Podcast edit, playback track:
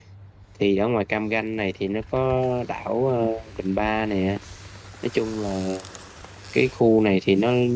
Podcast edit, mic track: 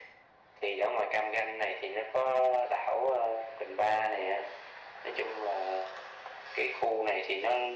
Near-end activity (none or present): none